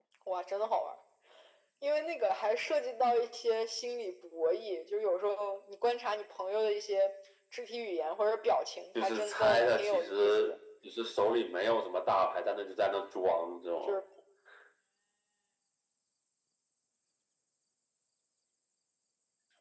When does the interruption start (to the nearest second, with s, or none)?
9 s